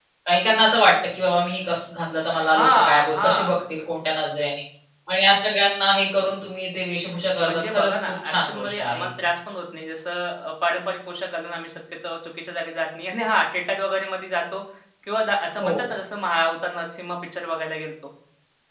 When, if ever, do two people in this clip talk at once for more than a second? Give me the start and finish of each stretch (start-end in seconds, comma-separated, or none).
2.4-3.6, 7.5-9.1